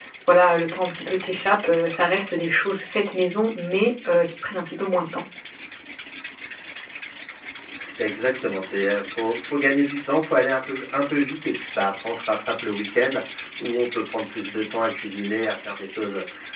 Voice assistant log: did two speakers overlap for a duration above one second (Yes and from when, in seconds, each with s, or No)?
No